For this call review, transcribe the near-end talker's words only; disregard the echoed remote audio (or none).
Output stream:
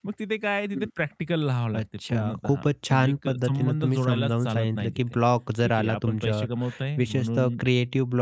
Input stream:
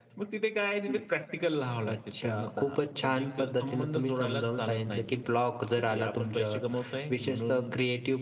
none